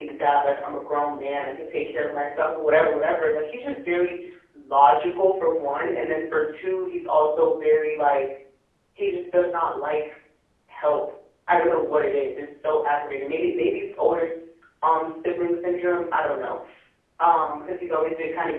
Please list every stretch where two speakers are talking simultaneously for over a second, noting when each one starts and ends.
none

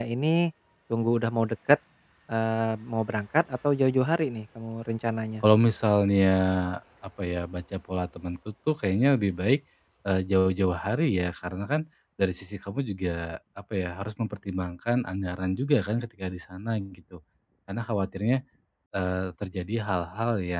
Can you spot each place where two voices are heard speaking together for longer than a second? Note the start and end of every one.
none

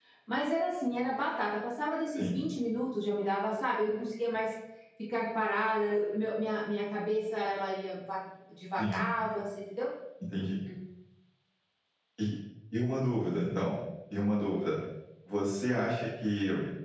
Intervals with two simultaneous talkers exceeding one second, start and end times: none

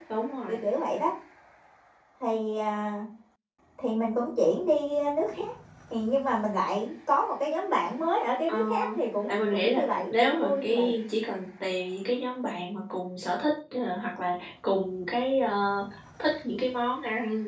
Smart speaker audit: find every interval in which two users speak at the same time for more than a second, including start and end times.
9.3-10.9

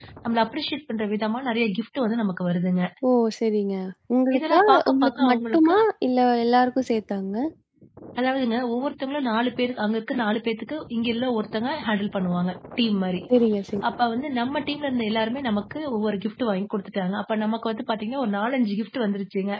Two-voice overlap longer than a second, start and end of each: 4.4-5.7

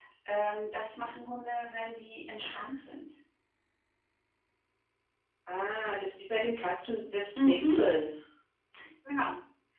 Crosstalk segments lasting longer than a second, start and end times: none

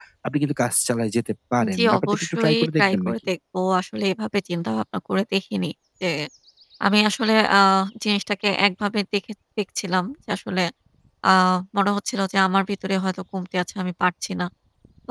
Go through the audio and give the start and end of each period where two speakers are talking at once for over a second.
1.8-3.1

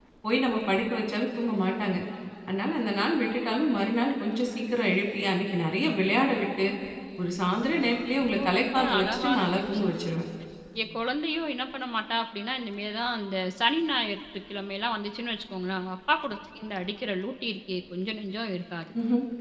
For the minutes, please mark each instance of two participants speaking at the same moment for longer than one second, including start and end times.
8.4-10.0

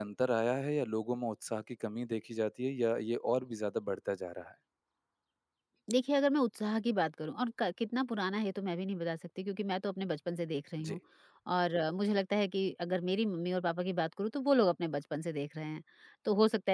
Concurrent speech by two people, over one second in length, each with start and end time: none

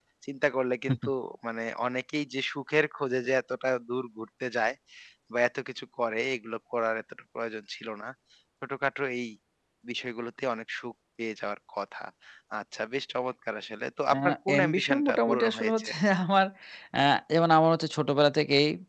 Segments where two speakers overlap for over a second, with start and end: 14.1-15.9

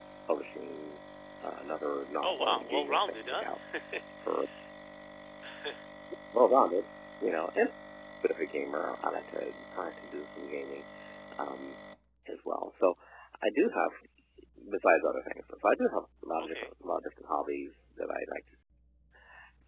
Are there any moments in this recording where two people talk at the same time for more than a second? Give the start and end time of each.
2.2-3.5

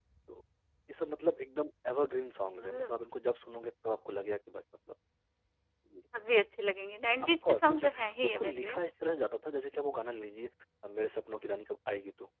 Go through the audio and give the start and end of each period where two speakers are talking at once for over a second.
7.2-8.8

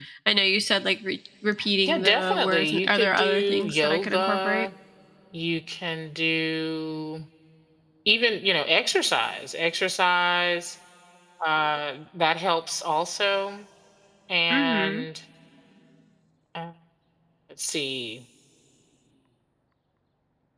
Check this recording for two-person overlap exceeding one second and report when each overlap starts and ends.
1.9-4.7

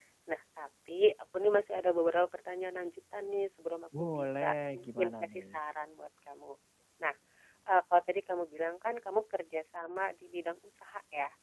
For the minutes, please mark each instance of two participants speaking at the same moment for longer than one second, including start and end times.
4.0-5.5

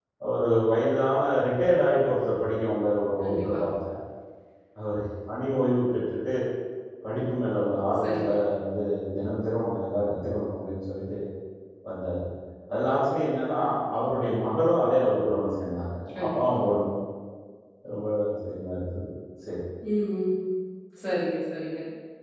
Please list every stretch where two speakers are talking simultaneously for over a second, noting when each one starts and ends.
none

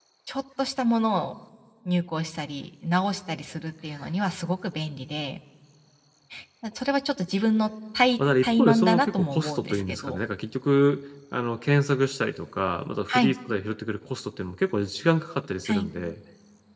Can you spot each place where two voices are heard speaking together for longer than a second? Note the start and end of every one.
8.4-10.2

